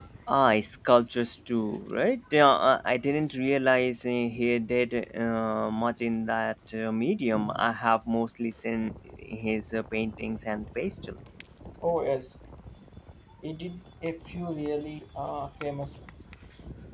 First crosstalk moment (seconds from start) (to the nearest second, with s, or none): none